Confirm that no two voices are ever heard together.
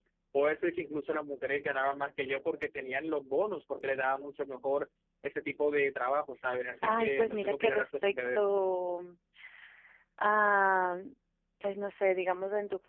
No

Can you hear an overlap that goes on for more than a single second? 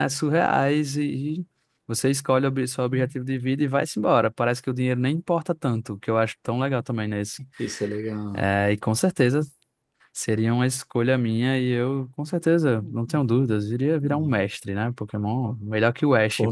No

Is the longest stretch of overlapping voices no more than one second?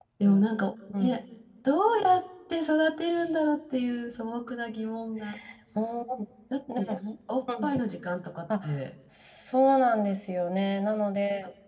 Yes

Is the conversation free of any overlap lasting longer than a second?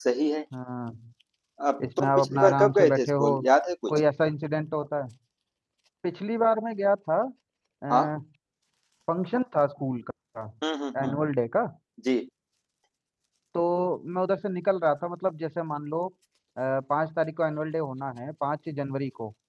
No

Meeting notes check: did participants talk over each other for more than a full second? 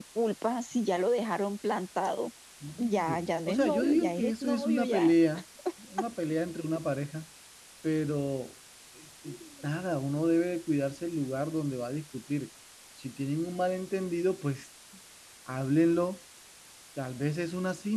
Yes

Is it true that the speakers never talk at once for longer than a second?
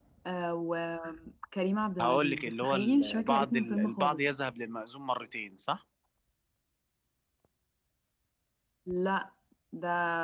No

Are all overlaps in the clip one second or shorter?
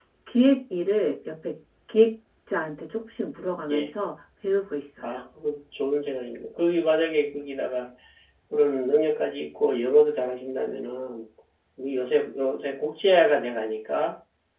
Yes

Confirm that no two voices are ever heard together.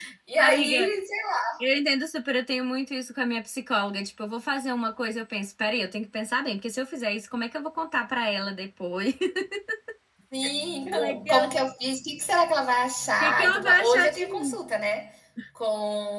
No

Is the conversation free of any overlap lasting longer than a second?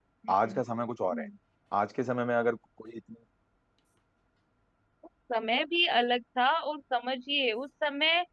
Yes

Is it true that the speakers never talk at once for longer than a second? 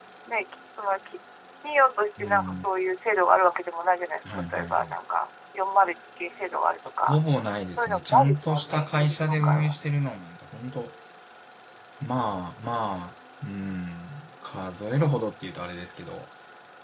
No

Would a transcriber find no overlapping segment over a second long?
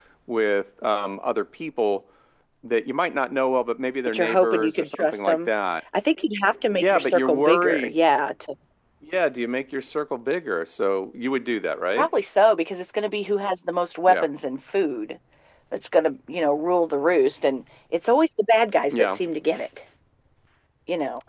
No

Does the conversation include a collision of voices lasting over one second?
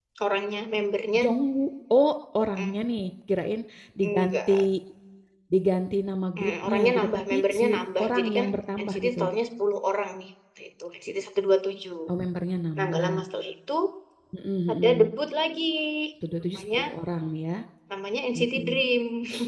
Yes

